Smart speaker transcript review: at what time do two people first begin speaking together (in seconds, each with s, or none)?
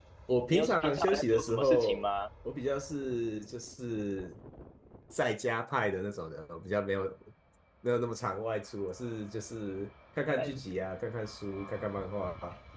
0.5 s